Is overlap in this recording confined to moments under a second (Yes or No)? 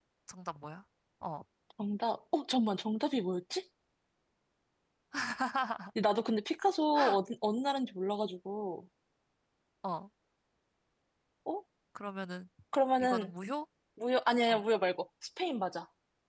Yes